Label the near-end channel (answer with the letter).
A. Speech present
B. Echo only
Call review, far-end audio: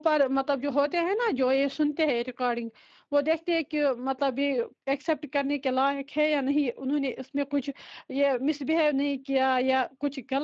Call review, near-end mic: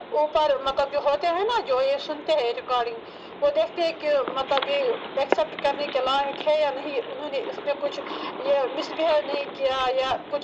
B